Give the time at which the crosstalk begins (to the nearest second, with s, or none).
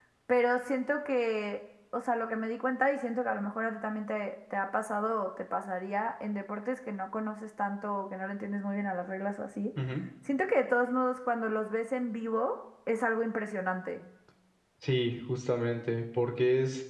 none